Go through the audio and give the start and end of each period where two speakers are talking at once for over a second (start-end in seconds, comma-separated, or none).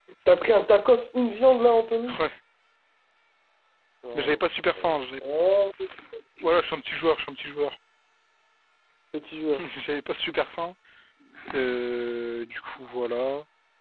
none